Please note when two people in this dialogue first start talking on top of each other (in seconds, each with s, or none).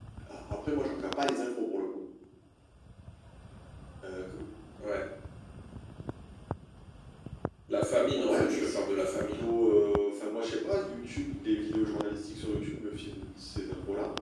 8.1 s